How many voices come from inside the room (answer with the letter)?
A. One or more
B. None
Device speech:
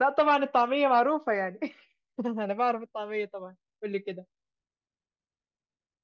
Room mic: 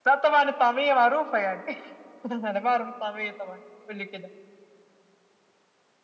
B